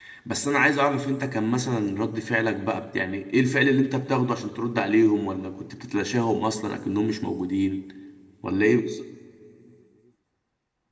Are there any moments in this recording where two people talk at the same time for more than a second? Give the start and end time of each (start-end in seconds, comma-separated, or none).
none